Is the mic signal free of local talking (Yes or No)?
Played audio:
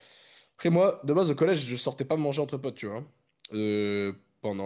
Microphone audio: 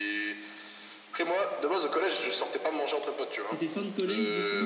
No